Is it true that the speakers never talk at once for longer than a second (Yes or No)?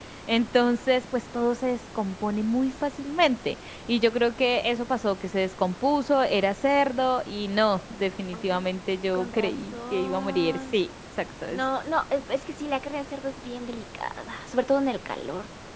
No